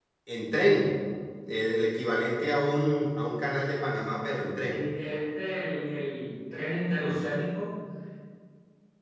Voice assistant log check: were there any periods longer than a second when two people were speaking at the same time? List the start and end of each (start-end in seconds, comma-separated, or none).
none